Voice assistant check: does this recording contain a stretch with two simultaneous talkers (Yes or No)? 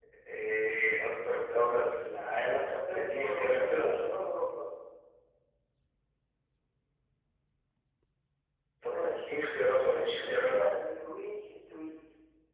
Yes